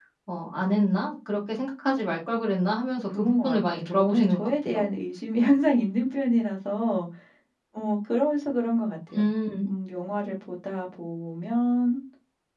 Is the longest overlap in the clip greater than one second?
Yes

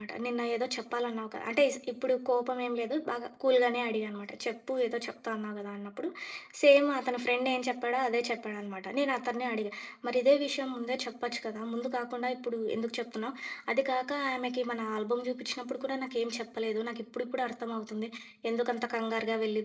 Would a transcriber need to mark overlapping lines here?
No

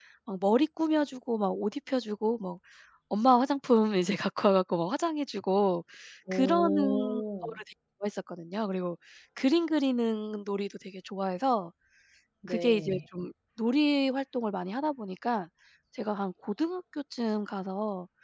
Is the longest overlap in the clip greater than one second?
Yes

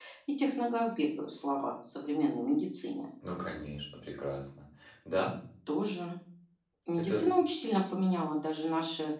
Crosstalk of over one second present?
No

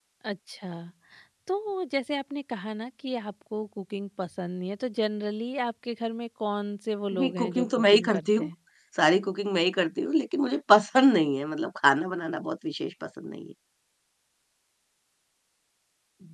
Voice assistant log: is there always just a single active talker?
No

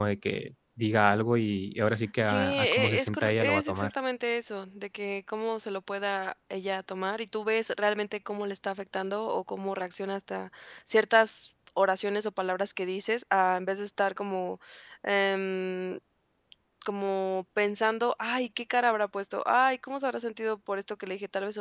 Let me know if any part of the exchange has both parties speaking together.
Yes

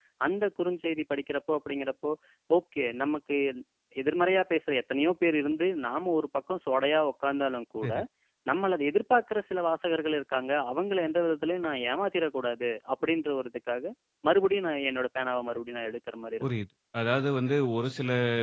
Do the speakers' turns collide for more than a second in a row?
No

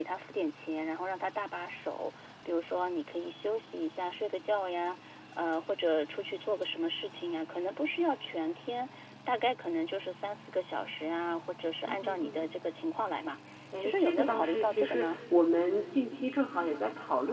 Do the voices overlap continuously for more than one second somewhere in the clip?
Yes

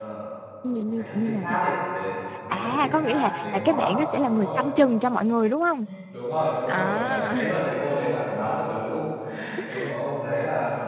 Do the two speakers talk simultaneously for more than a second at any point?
Yes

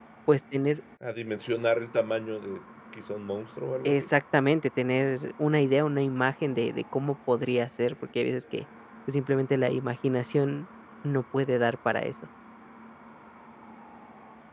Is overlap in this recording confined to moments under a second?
Yes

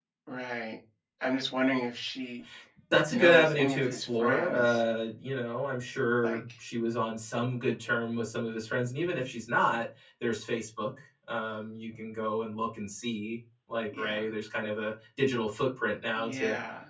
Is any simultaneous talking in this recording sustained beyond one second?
Yes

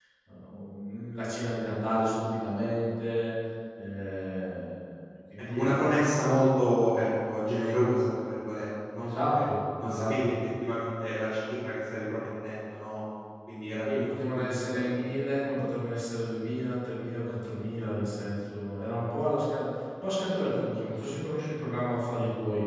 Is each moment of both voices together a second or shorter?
No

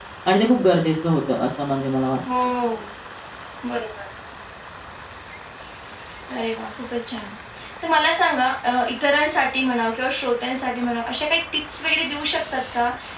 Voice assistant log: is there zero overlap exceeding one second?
Yes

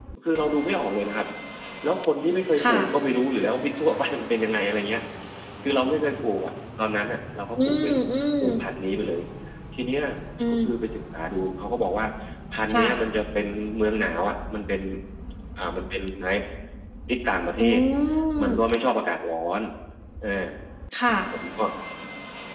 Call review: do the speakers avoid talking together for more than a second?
Yes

